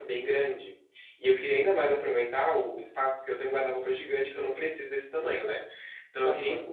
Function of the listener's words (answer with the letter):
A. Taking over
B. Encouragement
B